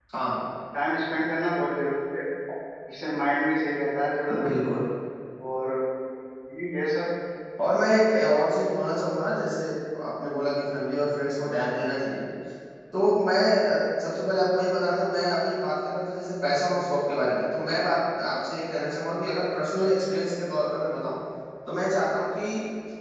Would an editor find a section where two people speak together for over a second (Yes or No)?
No